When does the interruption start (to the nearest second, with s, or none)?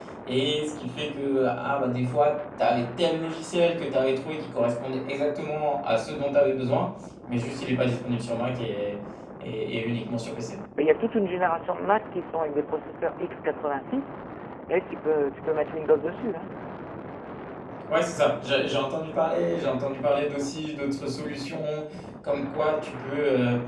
none